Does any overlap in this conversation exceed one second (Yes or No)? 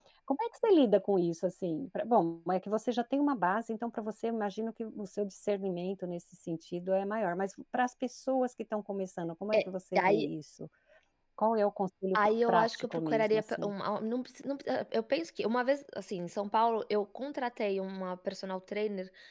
Yes